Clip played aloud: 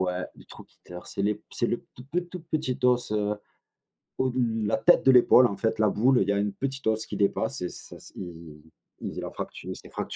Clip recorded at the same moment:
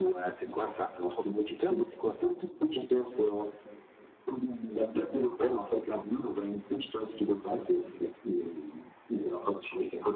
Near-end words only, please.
C'est quoi ça, trochiter? C'est quoi ça?

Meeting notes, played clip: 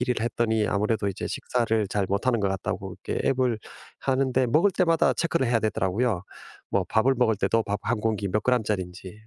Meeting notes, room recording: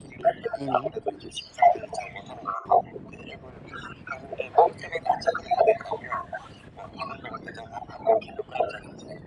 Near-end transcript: 네네.

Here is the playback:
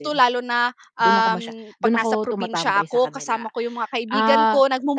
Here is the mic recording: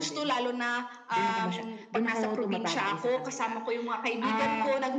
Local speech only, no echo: none

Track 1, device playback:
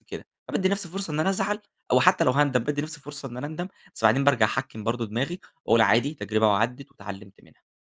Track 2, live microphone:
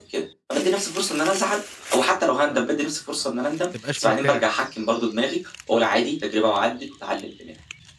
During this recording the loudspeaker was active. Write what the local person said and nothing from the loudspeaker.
ما ما ما ما بتبقاش مرتاح.

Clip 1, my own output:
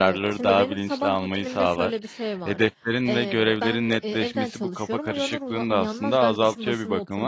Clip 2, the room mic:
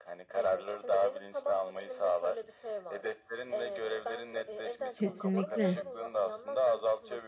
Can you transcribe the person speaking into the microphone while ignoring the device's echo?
Kesinlikle.

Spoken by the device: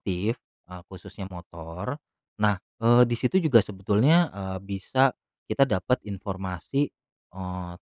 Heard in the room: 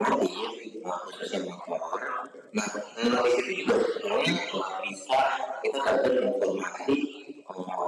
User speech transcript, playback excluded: none

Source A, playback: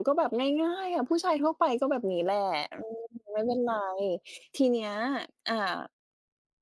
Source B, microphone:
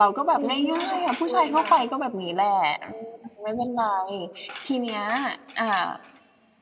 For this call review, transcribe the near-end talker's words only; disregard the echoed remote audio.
คุณคิดว่าแบบควรจะ

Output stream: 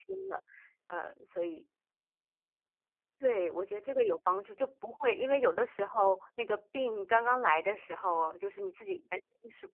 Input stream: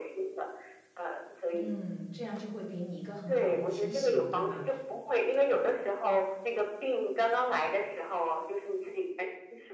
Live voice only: 嗯，这样就会给你一个很好的提醒，对吧，

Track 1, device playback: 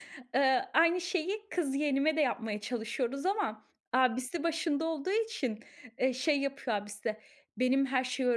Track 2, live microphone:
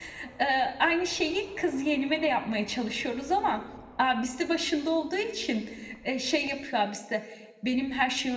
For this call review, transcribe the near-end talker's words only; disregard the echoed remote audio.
none

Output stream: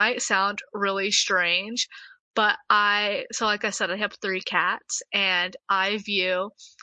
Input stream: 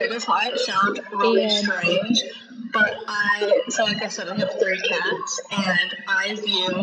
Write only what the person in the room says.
and

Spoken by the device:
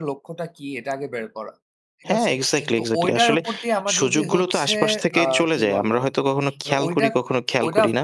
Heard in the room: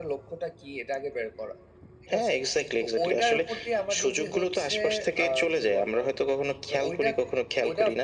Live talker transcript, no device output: none

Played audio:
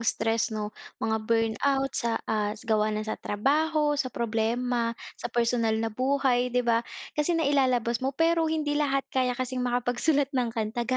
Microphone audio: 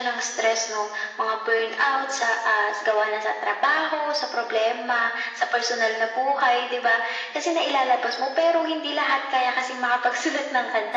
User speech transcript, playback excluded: none

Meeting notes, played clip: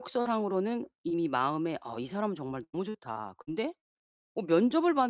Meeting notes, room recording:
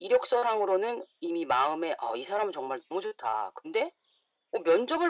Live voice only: none

